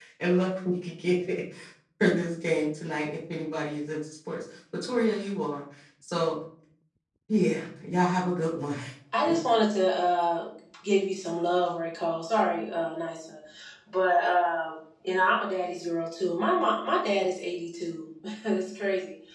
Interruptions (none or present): none